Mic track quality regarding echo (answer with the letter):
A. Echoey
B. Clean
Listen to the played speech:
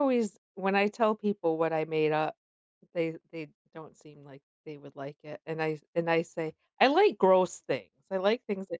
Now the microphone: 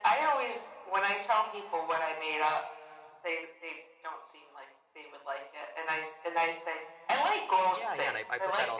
A